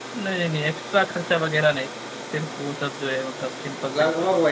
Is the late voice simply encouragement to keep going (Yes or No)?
No